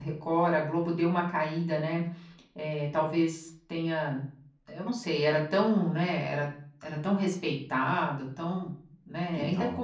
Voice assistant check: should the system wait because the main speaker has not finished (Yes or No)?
Yes